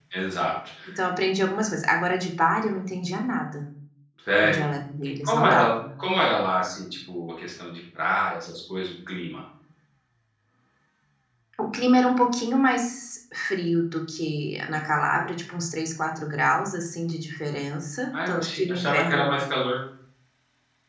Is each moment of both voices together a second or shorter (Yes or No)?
No